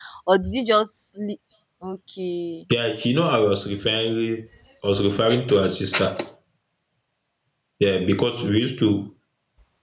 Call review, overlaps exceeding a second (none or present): none